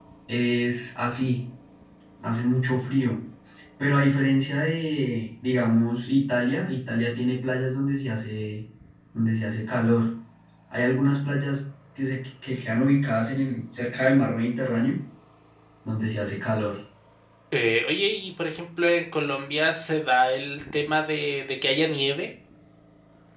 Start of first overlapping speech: none

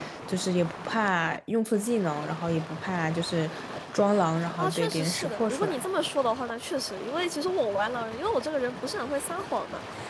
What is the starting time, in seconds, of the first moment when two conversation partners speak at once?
4.6 s

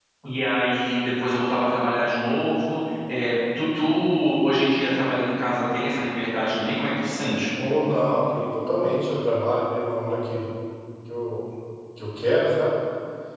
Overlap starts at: none

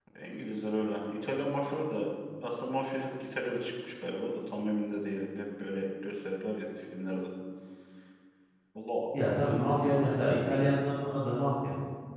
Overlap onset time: none

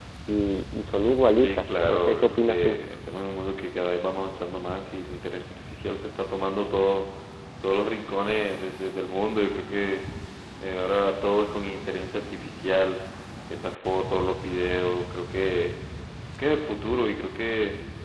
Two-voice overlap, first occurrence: 1.4 s

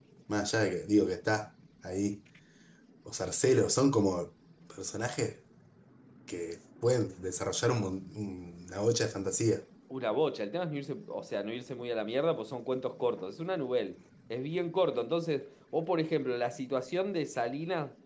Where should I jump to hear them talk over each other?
none

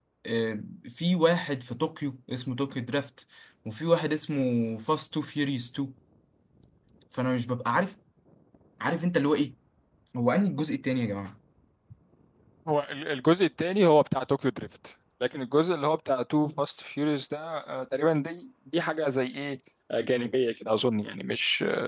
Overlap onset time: none

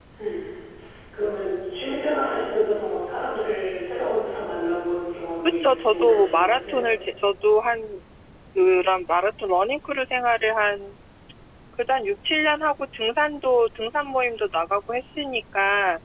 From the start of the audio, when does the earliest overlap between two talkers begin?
5.5 s

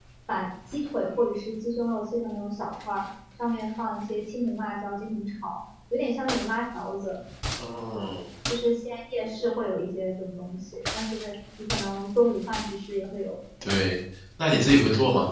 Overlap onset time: none

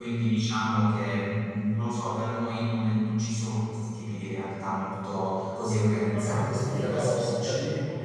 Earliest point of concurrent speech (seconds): 6.1 s

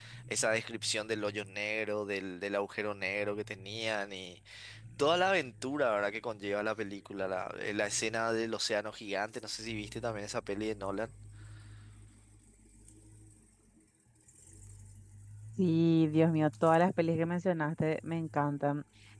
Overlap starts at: none

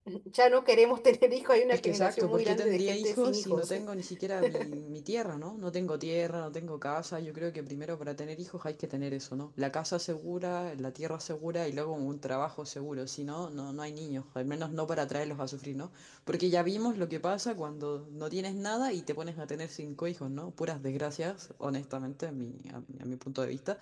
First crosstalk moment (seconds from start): 1.7 s

